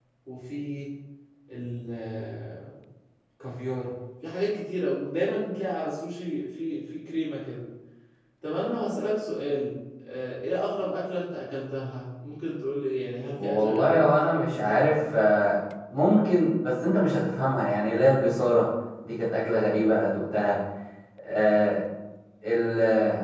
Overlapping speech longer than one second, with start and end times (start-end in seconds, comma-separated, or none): 13.4-14.9